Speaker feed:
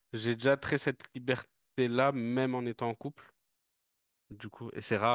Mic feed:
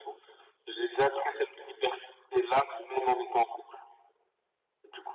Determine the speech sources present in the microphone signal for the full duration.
echo only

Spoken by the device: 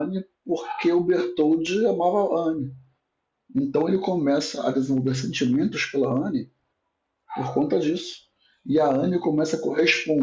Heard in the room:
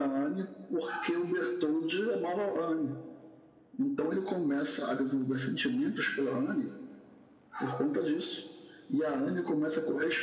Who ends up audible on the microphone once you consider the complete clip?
echo only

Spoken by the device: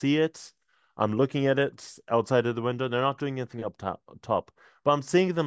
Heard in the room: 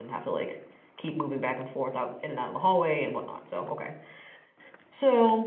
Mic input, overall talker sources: user only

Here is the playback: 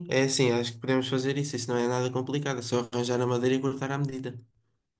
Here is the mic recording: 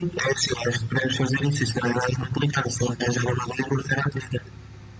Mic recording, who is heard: echo only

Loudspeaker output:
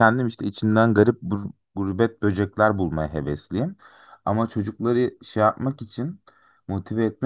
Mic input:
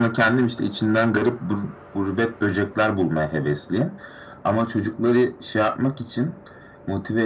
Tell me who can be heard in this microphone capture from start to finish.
echo only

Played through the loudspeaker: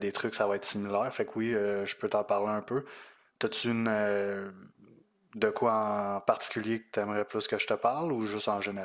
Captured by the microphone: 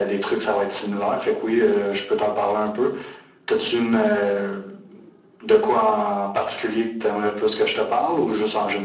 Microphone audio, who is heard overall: echo only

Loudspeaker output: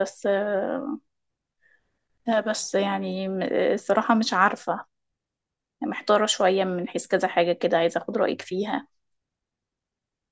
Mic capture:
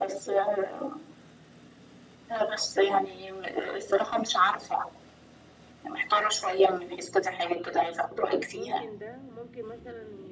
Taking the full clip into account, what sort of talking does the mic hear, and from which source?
both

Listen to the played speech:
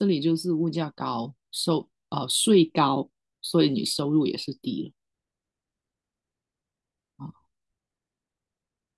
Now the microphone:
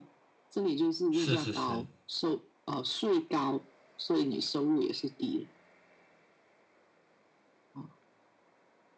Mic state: both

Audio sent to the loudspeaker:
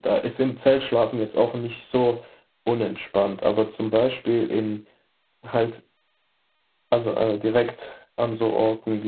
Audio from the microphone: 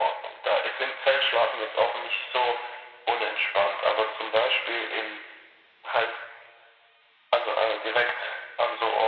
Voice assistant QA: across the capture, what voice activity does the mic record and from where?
echo only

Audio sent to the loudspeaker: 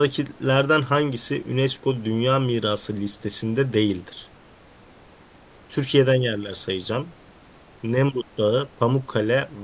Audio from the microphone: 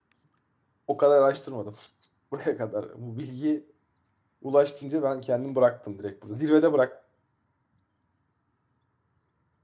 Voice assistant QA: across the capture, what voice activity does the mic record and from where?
user only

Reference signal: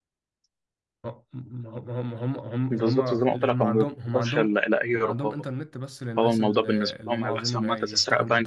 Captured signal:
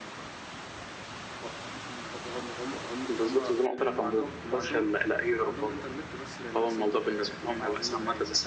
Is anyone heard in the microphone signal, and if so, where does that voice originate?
echo only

